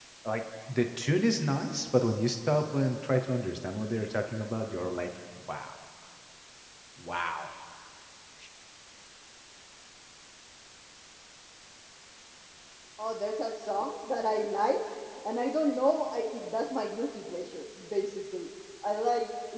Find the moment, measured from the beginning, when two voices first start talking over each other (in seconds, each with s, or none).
none